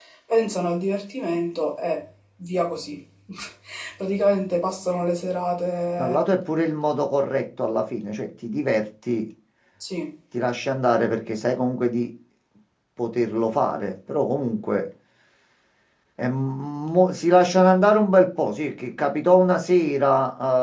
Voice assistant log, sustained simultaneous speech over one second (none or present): none